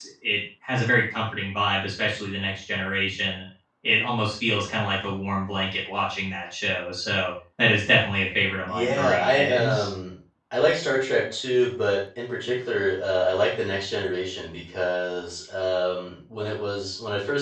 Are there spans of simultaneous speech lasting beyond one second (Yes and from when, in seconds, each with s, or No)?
Yes, from 8.7 s